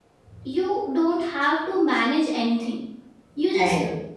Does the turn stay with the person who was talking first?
Yes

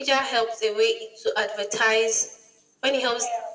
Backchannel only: Yes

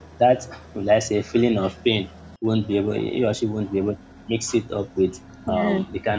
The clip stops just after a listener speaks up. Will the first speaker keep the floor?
Yes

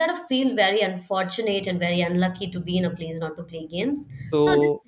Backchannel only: Yes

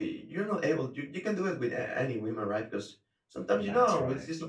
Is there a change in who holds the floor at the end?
No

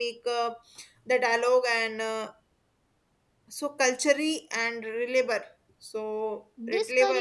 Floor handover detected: Yes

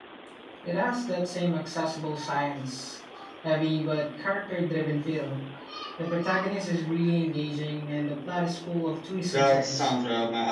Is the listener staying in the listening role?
No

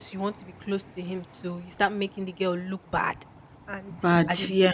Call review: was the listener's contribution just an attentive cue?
Yes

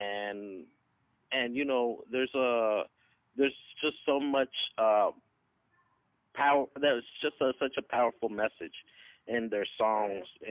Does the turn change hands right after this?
No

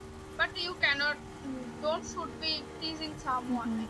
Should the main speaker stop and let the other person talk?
Yes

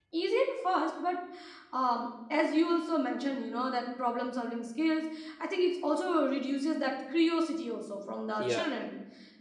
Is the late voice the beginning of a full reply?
No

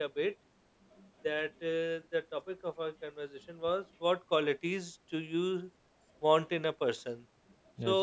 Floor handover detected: No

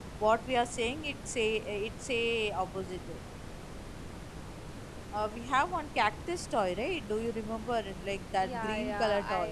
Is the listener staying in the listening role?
No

